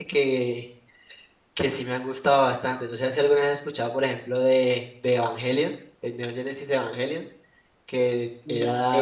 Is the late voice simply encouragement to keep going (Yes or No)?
Yes